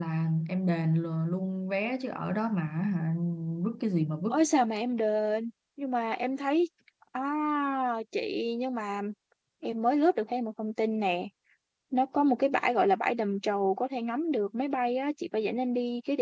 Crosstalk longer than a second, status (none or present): none